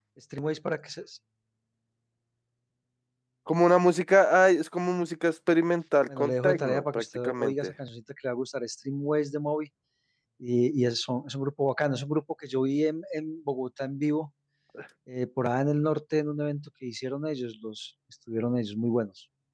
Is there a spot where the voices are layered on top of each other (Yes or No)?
Yes